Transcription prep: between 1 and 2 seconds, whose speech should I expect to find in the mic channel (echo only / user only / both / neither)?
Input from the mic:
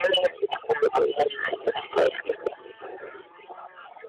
echo only